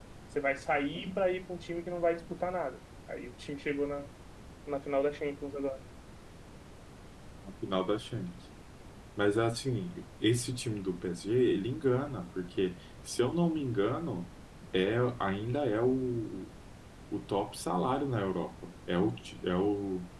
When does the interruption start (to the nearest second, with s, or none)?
none